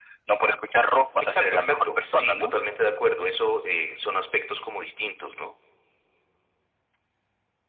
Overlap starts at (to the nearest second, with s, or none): 1 s